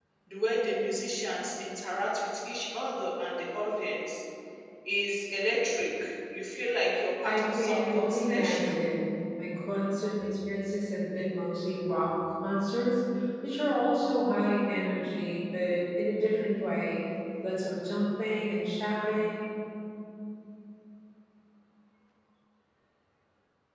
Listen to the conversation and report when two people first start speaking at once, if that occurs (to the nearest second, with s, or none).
7 s